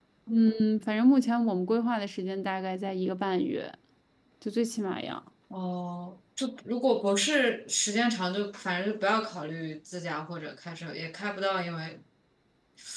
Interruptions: none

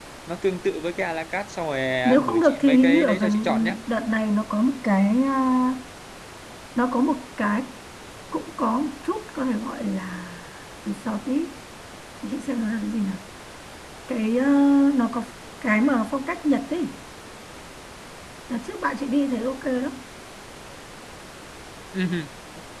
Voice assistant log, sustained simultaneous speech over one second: present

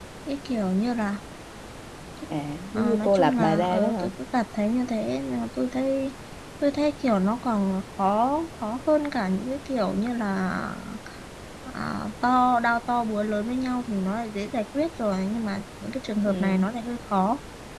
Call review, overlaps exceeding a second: present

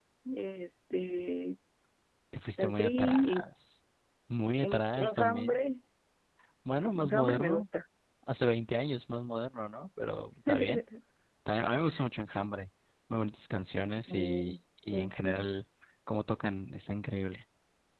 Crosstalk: present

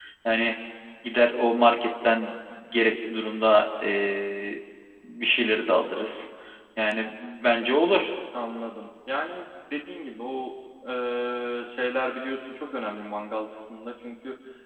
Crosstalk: none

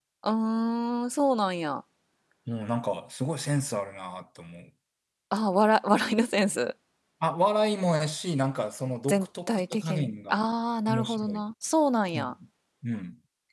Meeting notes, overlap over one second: present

